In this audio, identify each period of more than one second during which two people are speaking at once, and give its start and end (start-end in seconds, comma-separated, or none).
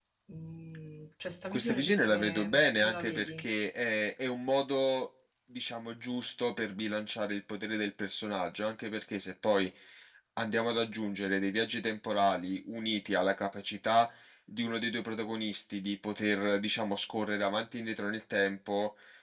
1.5-3.4